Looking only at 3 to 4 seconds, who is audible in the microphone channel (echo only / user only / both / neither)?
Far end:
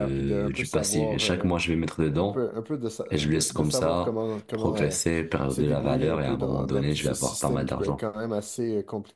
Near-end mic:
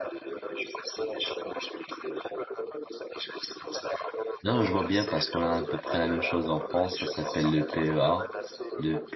echo only